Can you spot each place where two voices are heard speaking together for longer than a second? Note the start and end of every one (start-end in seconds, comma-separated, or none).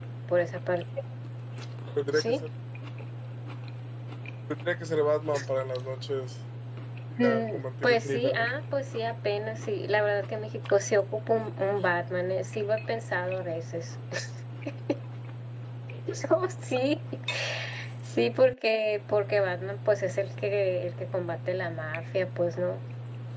7.2-8.5